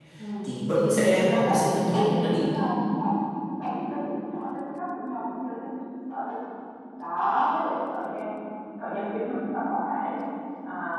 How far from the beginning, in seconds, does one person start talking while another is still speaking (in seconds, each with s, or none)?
0.9 s